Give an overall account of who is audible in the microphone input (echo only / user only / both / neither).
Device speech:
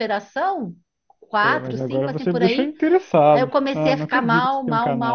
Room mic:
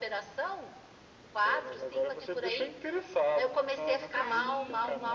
both